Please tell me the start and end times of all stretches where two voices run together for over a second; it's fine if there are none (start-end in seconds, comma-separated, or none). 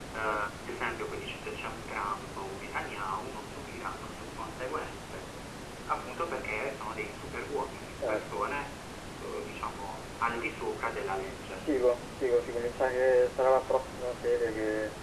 none